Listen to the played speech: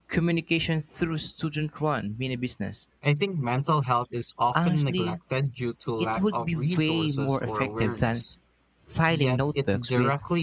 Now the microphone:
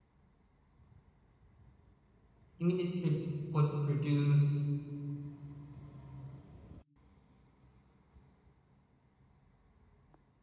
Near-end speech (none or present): present